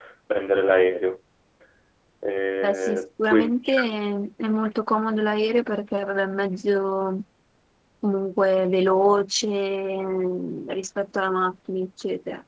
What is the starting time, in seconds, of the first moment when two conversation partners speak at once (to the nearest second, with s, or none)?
3 s